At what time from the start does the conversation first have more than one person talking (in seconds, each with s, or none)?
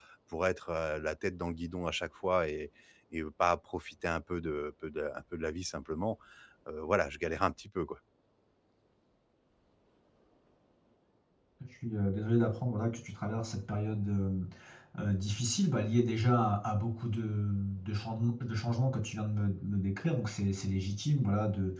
none